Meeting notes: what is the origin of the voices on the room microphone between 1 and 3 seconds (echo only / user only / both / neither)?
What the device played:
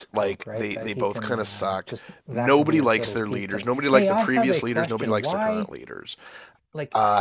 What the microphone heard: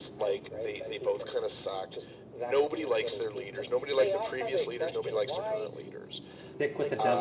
echo only